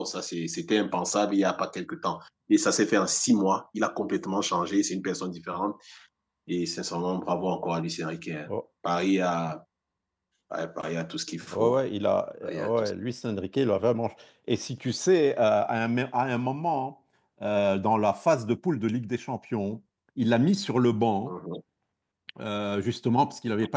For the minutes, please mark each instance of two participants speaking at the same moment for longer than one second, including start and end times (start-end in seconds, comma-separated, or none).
none